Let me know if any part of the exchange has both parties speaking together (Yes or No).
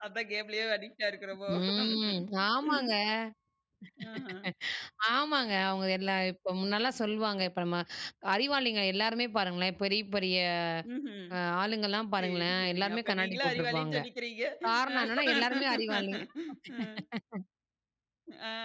Yes